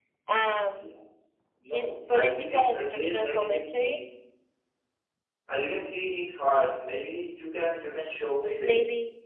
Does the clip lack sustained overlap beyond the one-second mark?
No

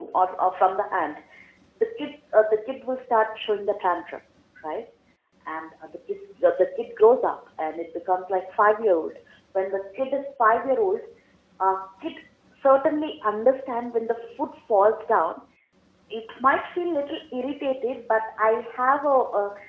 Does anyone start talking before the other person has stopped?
No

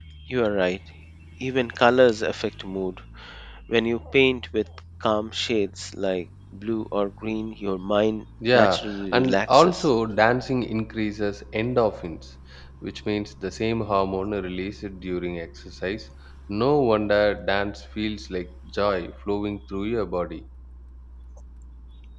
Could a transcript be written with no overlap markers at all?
No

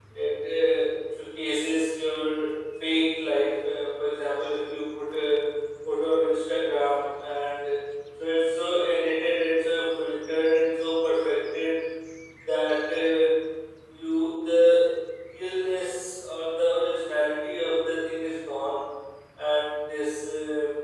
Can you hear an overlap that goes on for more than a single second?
No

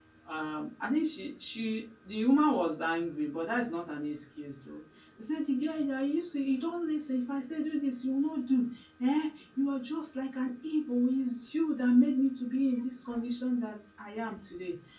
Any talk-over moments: No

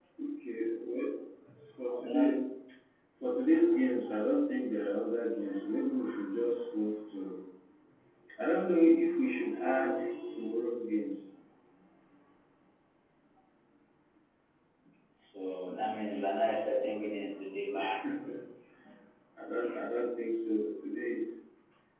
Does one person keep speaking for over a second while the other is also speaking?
No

